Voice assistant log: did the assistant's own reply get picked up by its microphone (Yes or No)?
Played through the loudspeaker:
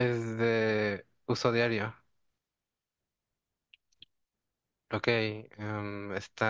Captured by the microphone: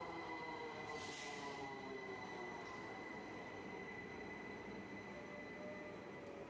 No